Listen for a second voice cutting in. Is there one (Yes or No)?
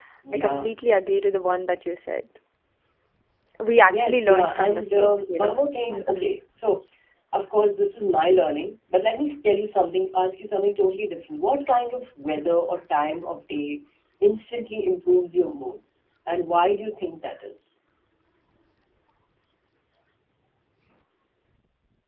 Yes